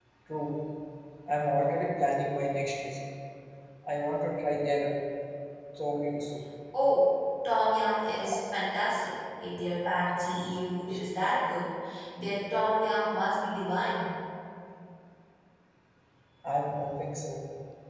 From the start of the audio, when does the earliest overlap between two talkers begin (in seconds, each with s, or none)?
none